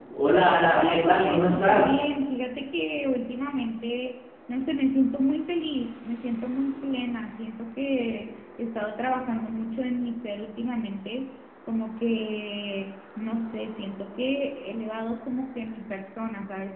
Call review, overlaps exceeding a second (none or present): present